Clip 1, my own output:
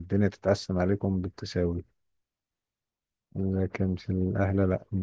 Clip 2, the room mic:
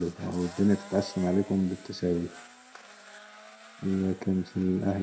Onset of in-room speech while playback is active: none

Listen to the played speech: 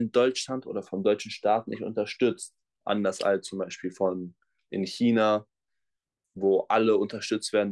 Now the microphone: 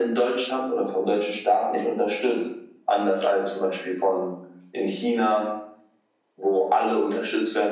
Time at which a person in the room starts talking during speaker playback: none

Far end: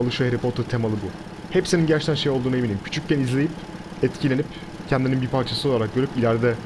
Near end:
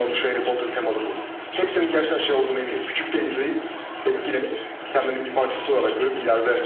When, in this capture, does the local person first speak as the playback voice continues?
none

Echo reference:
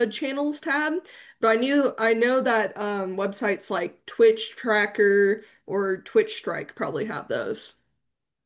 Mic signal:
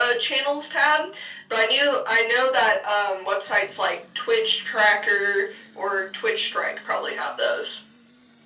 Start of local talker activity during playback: none

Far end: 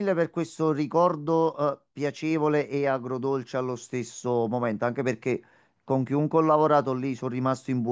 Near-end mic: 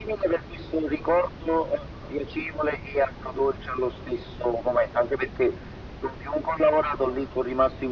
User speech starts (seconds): none

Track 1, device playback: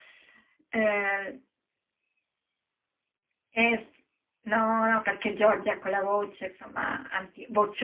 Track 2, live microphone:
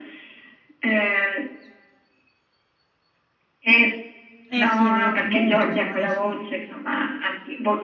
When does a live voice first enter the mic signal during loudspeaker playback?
5 s

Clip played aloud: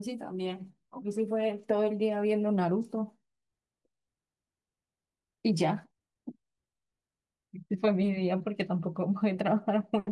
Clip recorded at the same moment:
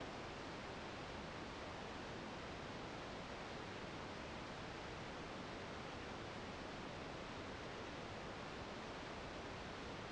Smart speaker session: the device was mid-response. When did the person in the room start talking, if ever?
none

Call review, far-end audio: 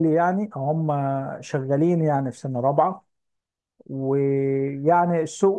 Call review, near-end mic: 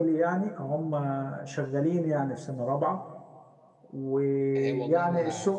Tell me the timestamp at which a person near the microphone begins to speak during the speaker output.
5 s

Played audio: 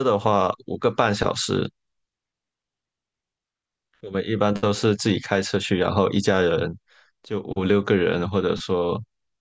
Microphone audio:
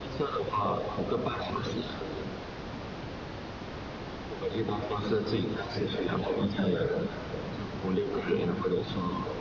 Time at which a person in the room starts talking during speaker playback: none

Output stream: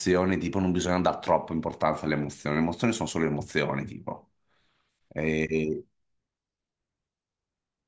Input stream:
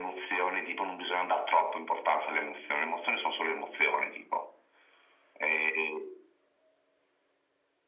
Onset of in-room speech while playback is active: none

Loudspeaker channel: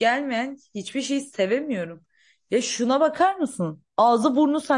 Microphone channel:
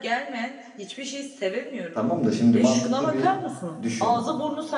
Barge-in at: 2 s

